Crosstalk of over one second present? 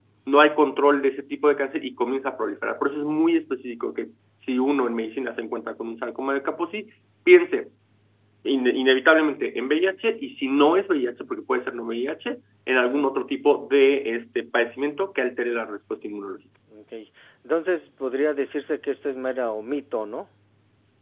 No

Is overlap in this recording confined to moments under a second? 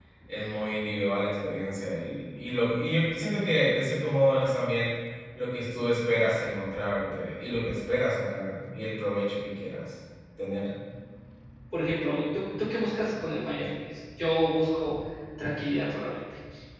Yes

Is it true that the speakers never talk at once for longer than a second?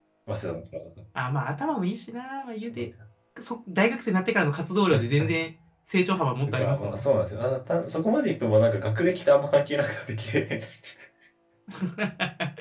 Yes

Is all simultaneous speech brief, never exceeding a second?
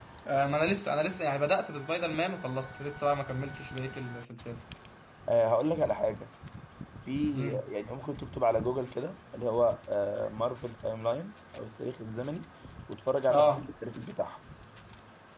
Yes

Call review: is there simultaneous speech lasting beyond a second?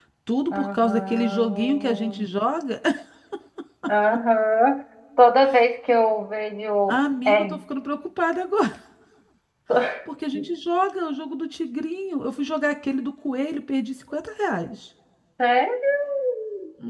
Yes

